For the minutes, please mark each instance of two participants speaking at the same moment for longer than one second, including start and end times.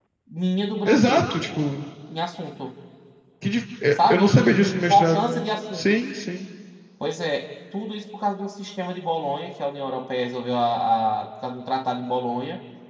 3.9-5.3

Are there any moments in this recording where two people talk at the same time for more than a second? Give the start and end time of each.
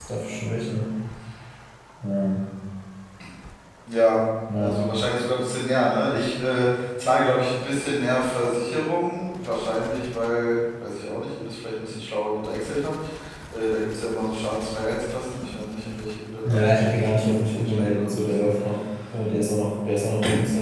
16.4-18.3

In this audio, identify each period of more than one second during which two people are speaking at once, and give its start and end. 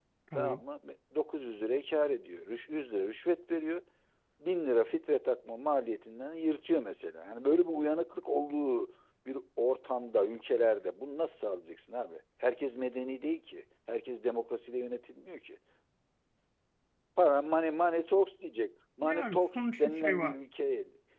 19.0-20.4

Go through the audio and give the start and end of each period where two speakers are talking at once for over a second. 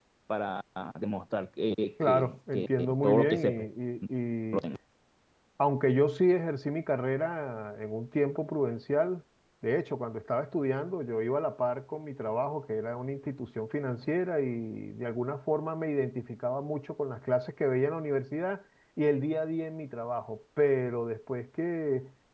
2.0-3.4

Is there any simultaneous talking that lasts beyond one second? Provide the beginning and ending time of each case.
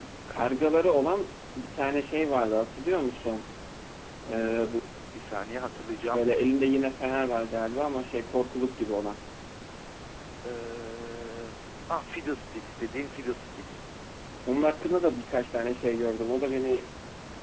none

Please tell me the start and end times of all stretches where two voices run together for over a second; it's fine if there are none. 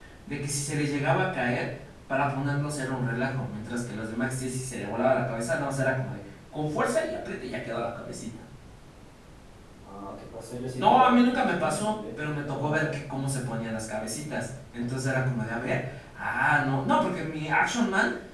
10.8-13.0

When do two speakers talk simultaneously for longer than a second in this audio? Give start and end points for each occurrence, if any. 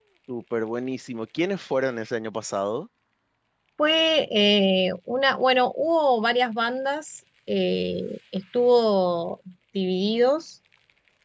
none

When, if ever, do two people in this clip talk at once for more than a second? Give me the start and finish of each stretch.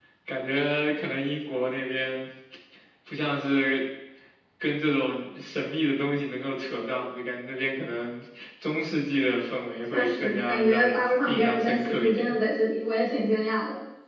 9.9-12.3

